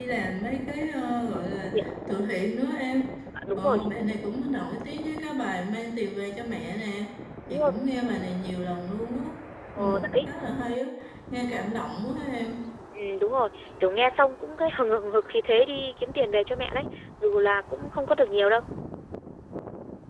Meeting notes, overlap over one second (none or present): none